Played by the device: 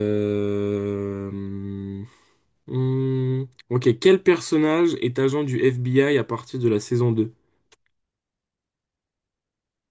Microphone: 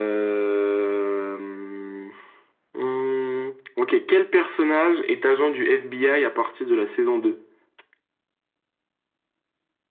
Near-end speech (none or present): none